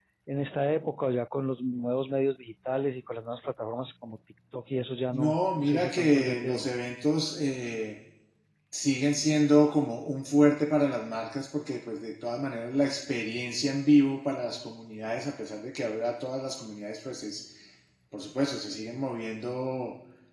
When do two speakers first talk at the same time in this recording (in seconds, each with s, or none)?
5.1 s